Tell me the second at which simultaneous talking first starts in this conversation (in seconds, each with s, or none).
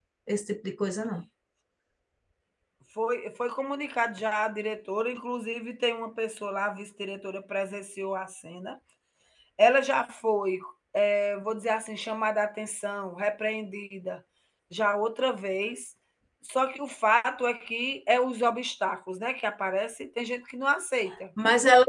none